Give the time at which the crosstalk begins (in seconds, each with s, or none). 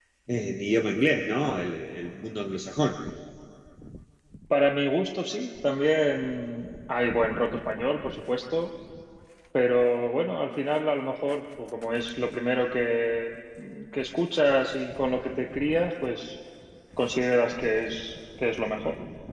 none